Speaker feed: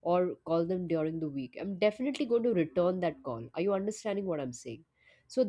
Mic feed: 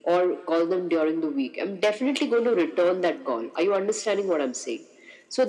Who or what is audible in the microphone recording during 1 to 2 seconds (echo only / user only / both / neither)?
echo only